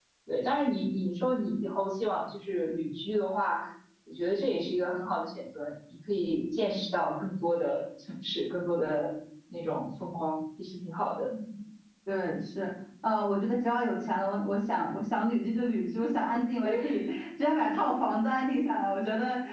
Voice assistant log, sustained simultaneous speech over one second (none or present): none